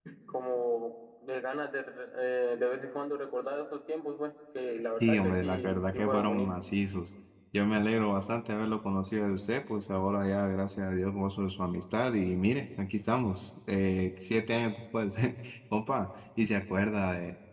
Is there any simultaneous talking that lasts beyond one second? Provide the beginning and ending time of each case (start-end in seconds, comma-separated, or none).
5.0-6.5